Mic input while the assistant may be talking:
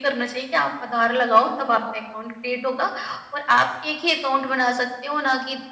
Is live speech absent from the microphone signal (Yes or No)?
Yes